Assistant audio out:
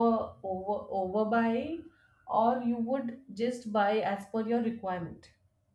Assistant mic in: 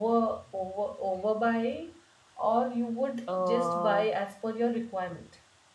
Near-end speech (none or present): present